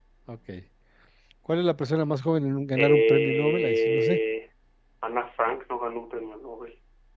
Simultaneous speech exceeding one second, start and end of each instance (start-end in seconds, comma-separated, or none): 2.8-4.2